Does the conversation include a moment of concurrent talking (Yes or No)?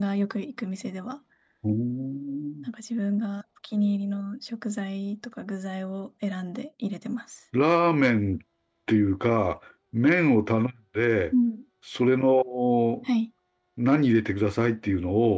No